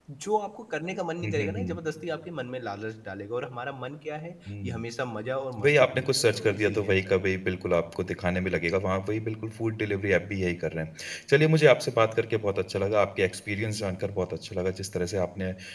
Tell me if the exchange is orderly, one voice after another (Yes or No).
No